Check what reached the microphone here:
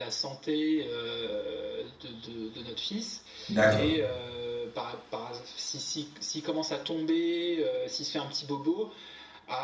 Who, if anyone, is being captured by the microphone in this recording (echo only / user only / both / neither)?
both